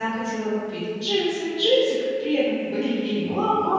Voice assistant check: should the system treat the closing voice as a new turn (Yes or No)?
No